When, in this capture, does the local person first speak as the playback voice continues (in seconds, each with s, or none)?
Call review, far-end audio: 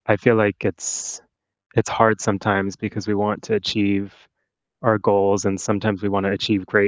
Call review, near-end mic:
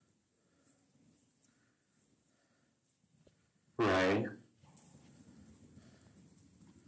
3.8 s